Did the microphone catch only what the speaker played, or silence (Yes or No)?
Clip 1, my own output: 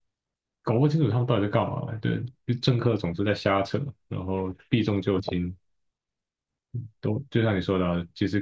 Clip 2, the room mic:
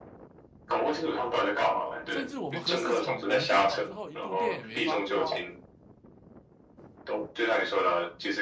No